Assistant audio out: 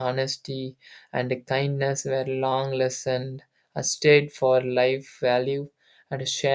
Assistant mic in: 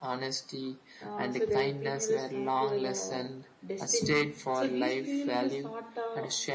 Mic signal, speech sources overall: both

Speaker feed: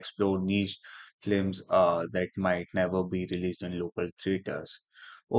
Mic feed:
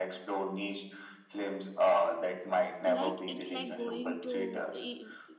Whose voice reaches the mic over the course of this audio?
both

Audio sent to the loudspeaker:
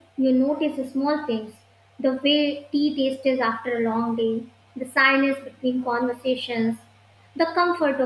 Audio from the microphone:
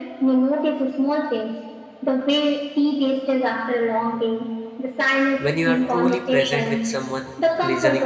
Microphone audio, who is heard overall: both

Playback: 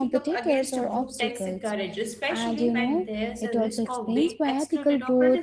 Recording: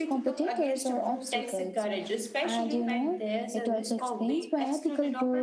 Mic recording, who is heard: echo only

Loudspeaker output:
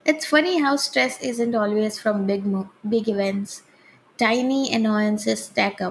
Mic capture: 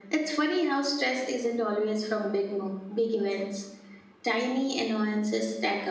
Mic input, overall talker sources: echo only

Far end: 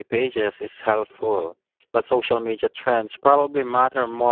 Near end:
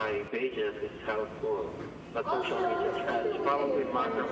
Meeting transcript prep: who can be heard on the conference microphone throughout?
both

